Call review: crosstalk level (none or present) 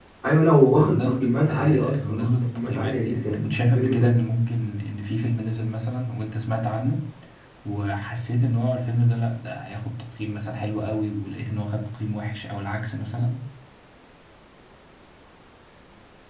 present